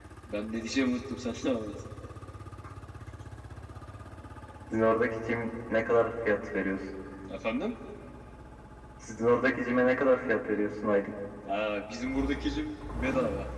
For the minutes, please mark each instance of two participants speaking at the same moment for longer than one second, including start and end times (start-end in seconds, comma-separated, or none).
none